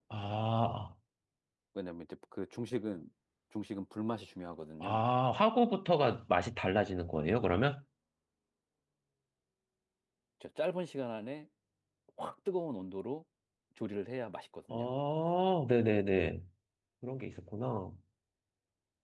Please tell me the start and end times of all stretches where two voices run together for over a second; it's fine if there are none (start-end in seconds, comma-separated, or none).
none